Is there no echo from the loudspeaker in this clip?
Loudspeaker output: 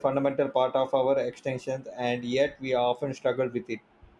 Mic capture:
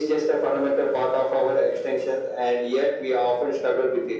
No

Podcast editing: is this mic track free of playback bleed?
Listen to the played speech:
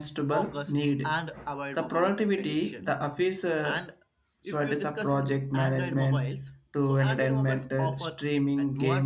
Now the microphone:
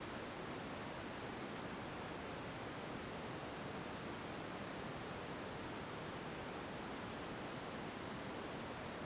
Yes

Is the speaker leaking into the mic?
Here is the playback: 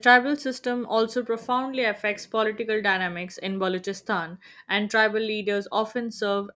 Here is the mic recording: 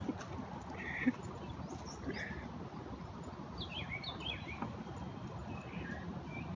No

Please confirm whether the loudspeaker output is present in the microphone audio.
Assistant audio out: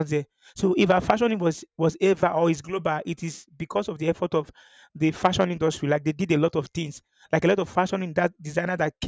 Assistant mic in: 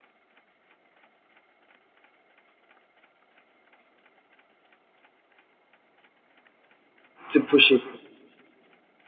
No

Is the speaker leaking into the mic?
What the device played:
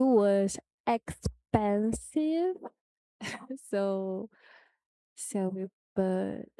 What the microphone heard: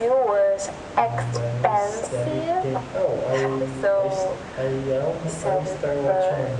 Yes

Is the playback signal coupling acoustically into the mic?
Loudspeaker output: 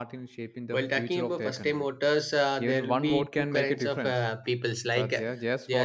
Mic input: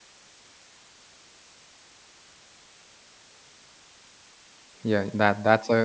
No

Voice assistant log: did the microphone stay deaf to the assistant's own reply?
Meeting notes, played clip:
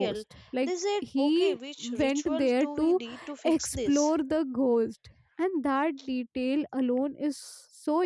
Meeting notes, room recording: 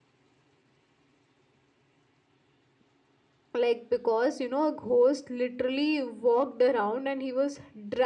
Yes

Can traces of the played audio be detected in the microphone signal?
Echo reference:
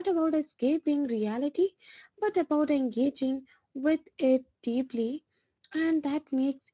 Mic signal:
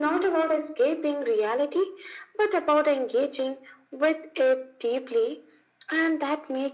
Yes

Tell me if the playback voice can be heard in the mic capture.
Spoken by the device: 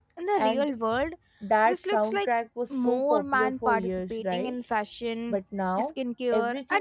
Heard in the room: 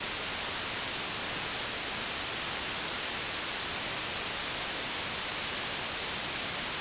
No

